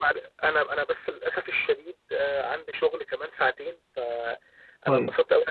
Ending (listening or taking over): listening